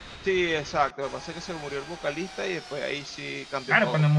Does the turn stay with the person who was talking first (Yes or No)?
No